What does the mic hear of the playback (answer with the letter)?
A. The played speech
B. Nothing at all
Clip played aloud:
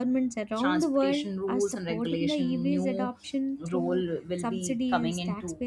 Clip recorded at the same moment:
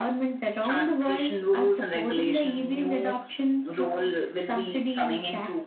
A